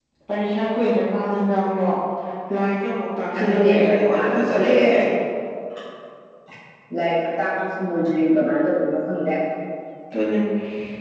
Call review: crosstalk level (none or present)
present